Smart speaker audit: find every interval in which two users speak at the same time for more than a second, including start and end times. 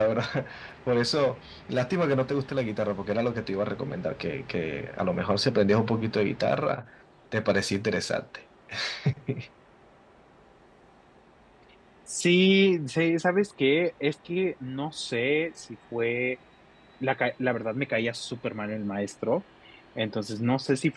none

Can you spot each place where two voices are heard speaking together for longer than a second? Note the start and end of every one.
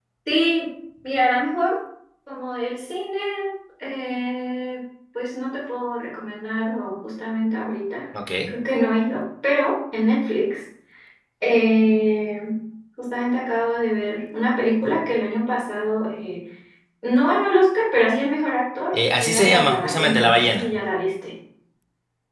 18.9-20.7

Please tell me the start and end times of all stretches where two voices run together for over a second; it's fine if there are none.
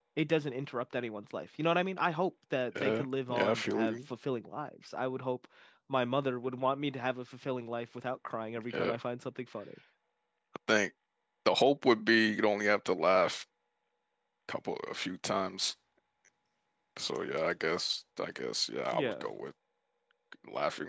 2.8-4.0

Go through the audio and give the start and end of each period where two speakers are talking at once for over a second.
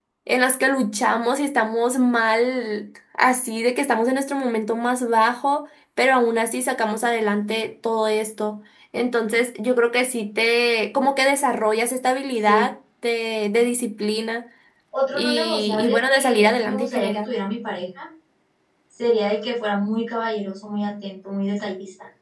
15.1-17.3

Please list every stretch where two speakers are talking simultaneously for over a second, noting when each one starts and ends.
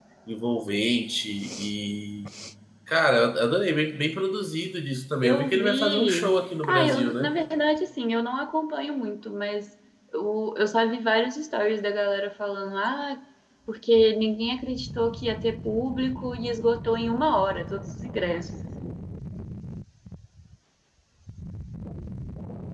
5.2-7.4

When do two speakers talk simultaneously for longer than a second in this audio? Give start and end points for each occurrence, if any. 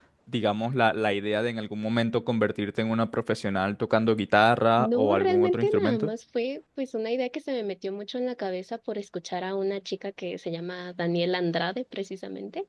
4.8-6.1

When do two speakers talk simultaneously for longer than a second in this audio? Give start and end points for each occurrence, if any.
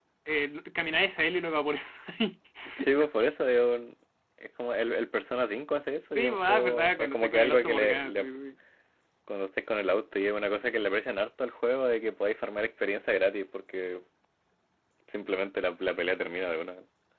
6.2-8.3

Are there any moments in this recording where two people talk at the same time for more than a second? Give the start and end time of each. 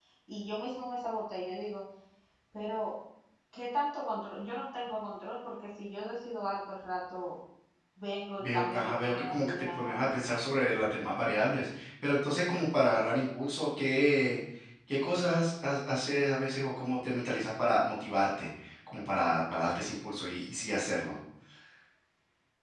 8.4-10.1

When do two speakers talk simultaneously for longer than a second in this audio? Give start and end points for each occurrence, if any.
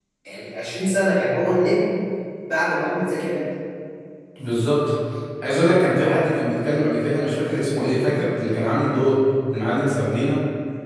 none

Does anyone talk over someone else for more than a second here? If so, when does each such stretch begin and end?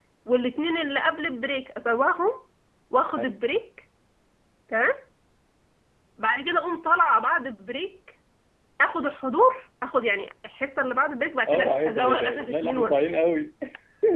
11.5-13.1

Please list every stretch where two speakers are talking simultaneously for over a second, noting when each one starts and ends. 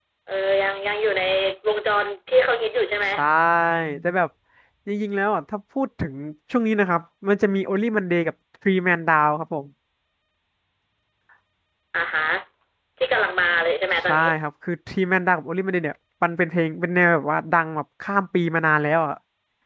none

